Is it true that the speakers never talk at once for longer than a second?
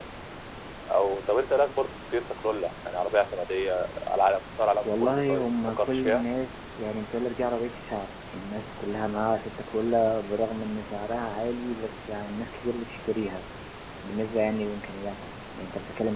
No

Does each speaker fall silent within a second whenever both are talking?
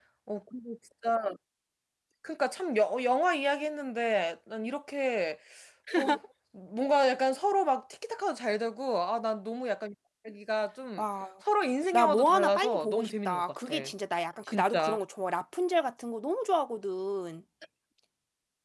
No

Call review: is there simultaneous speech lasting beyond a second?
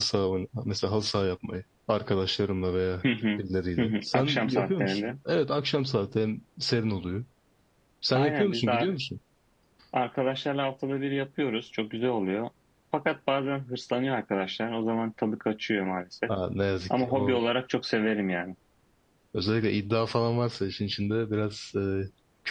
Yes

